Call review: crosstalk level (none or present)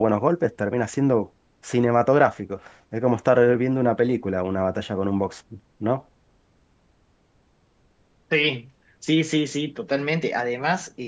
none